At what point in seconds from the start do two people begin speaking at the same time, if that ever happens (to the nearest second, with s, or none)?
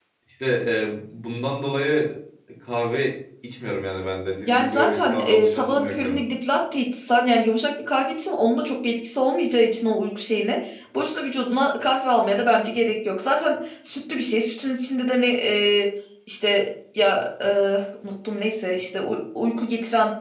4 s